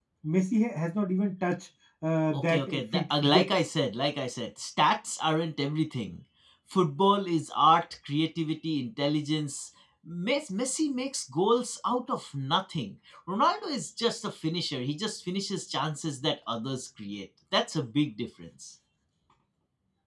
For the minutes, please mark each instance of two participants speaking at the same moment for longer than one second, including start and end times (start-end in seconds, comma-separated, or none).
2.3-3.5